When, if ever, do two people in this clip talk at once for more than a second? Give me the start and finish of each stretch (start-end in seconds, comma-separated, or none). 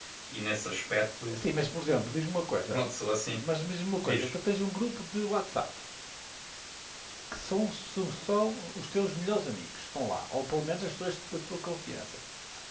none